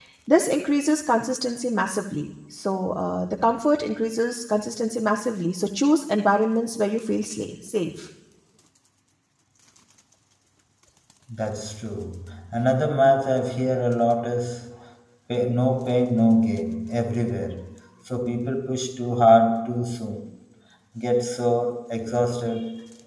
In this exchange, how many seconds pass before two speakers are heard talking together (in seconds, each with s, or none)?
none